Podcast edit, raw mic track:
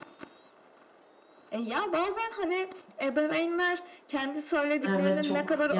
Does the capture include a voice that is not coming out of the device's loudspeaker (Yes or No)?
Yes